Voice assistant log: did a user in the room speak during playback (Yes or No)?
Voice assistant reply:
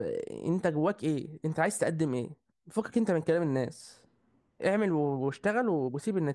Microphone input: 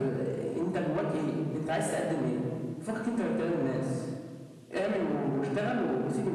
No